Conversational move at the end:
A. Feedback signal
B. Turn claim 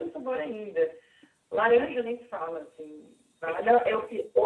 B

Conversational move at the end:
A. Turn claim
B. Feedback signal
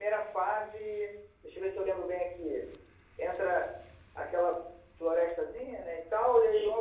B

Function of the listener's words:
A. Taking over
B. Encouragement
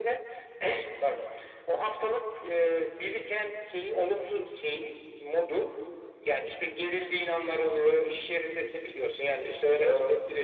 B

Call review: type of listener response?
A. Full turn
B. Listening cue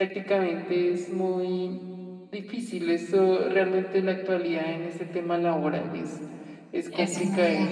A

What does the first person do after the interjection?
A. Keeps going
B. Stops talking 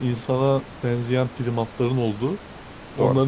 A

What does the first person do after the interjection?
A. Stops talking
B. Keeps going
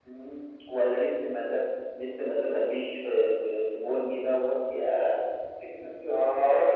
A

